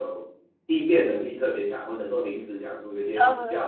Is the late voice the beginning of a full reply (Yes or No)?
Yes